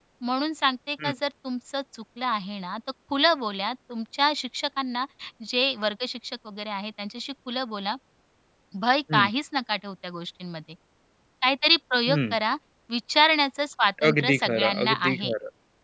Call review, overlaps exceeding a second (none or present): present